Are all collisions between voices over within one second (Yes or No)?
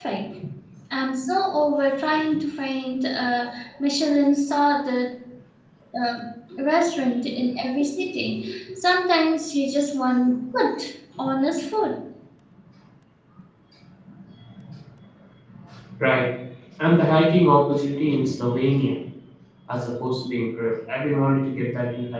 Yes